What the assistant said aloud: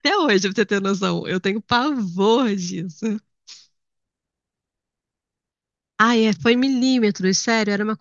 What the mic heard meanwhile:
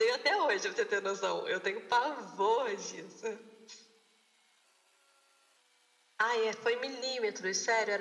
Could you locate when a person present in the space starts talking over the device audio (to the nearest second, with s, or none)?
none